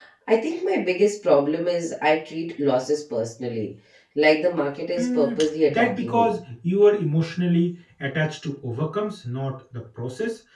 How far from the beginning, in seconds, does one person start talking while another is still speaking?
5.0 s

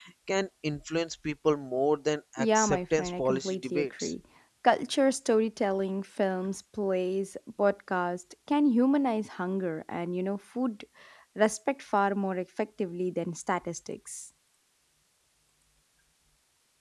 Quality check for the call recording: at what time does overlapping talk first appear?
2.4 s

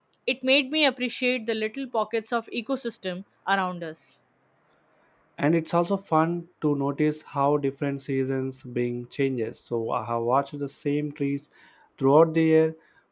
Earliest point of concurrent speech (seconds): none

